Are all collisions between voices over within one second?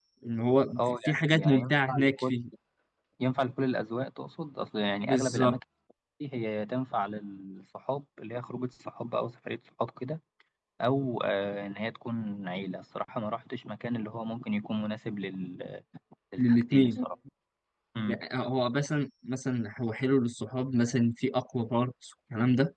No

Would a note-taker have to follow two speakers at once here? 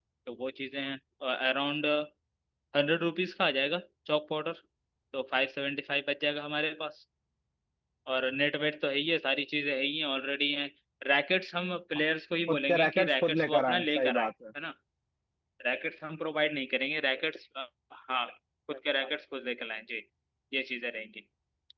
Yes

